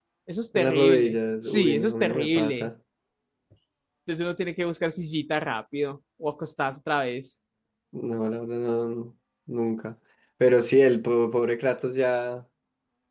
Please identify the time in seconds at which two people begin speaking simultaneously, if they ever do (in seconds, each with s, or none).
0.6 s